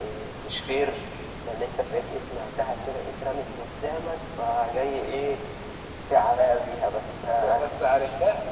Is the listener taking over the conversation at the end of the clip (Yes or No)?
Yes